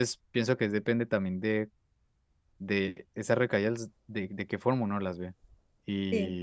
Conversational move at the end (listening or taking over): listening